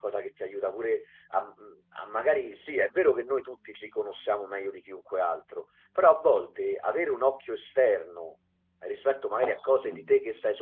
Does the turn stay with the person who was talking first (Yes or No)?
Yes